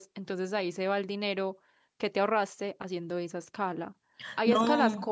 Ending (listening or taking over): listening